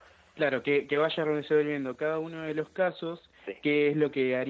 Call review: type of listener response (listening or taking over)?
listening